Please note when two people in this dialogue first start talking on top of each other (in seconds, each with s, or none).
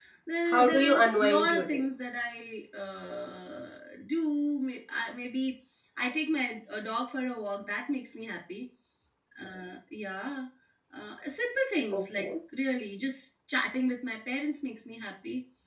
0.5 s